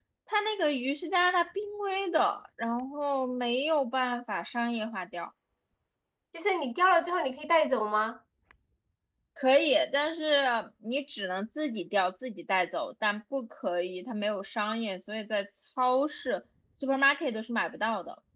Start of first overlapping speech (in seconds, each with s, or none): none